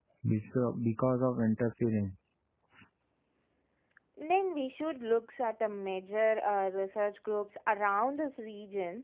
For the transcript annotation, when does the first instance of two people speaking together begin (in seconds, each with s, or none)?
none